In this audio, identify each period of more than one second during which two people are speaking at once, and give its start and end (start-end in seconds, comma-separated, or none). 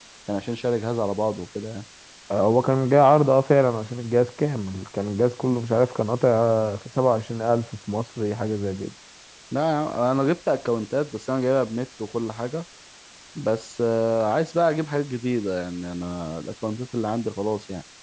none